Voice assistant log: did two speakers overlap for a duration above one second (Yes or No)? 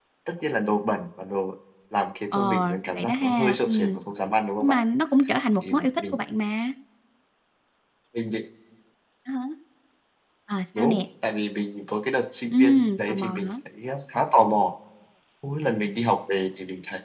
Yes